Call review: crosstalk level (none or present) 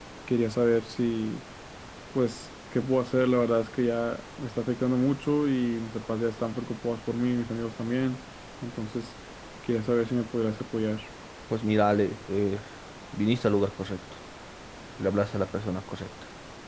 none